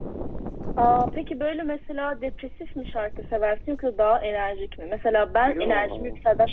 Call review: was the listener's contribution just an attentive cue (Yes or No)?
Yes